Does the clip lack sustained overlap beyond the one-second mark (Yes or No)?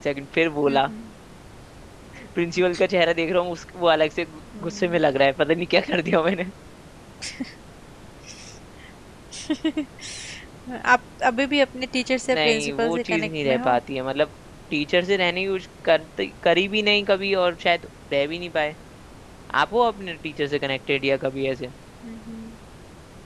No